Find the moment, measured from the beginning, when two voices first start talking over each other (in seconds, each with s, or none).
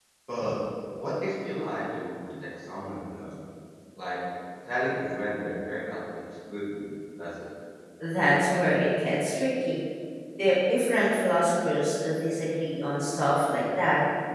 none